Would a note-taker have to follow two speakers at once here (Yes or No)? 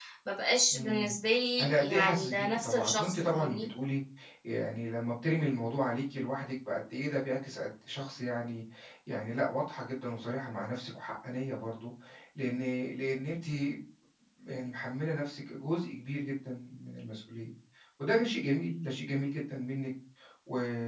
Yes